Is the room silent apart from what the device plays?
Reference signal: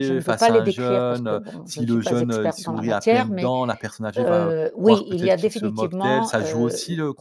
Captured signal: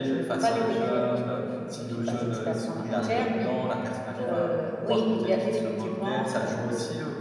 No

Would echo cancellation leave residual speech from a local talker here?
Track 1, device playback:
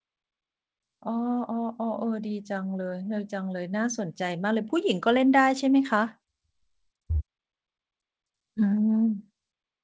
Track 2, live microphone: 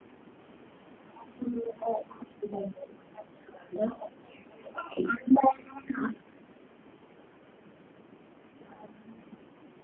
No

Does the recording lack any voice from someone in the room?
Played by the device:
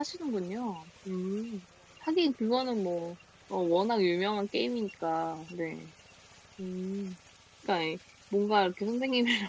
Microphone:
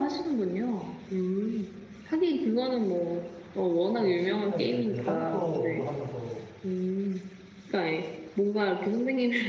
No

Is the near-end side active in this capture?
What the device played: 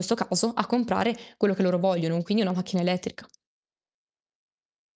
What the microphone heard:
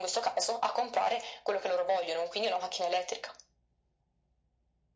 No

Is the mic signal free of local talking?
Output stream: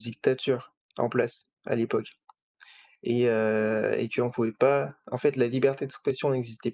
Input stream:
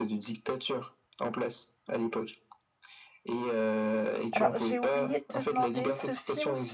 No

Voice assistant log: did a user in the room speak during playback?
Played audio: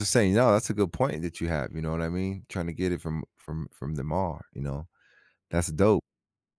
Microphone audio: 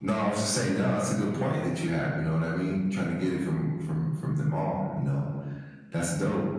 No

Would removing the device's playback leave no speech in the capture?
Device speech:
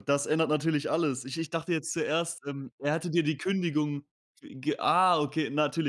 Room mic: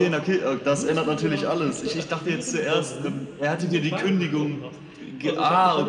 No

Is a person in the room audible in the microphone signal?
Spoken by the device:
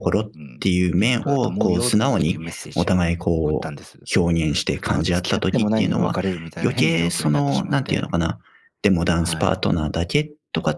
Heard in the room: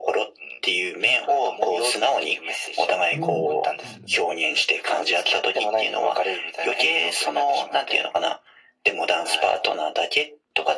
Yes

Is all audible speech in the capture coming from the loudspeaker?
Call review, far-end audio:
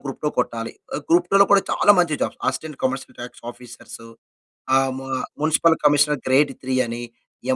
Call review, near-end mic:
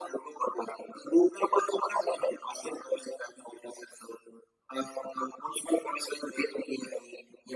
Yes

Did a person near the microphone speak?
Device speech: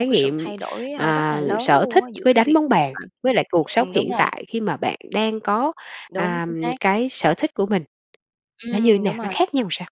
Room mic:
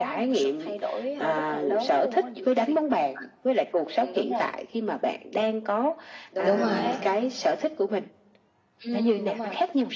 Yes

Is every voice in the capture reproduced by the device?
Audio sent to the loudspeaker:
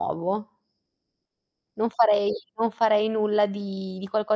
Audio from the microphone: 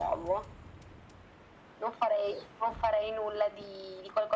Yes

